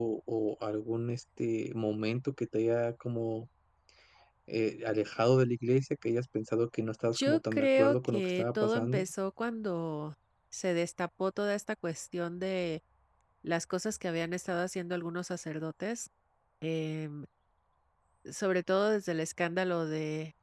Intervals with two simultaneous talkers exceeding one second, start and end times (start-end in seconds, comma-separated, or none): 7.1-9.0